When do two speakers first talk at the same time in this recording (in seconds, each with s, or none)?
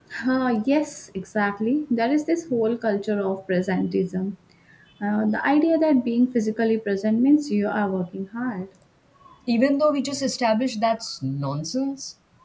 none